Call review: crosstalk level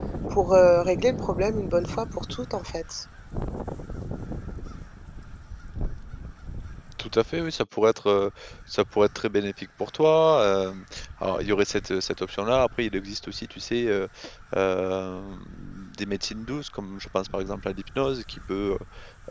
none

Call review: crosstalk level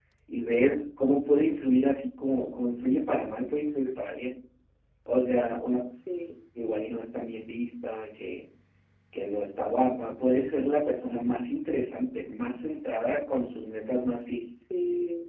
none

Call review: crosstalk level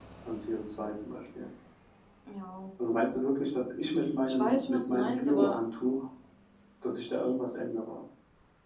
present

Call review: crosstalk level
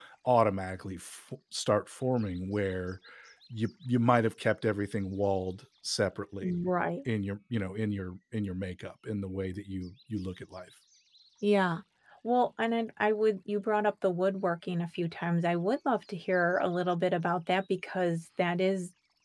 none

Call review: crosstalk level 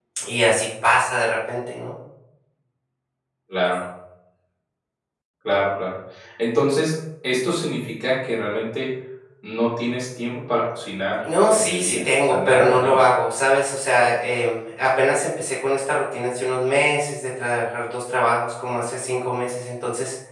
present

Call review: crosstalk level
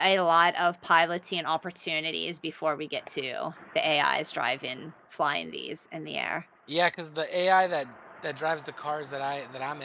none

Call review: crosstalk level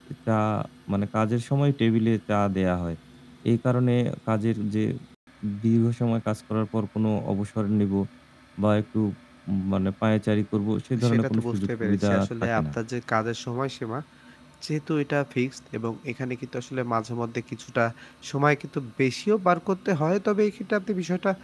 present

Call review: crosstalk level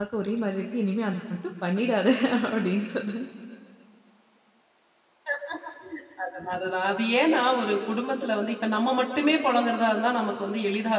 none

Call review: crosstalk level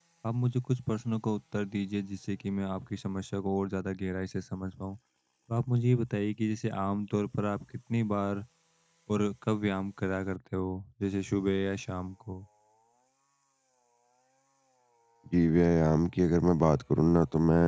none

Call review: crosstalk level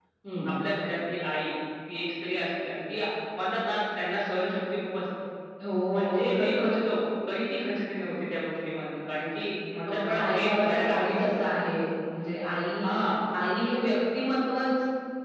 present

